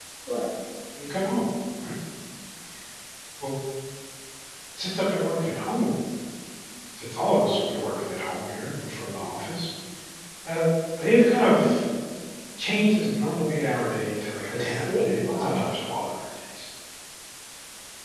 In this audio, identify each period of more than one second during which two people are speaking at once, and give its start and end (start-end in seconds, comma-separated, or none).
14.5-15.8